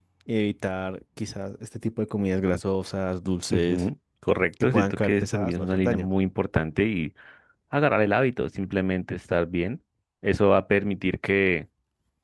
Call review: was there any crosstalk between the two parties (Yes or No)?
Yes